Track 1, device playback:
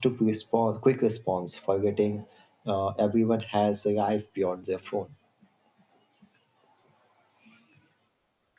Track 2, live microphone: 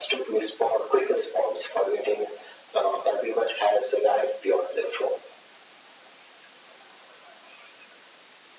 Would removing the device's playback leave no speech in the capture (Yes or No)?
Yes